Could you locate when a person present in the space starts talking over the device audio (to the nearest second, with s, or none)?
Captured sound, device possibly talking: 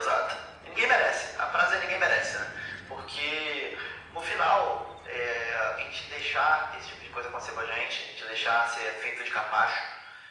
none